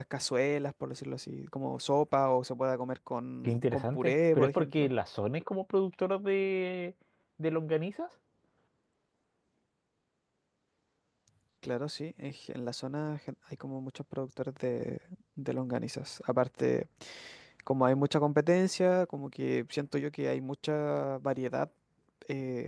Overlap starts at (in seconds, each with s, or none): 3.4 s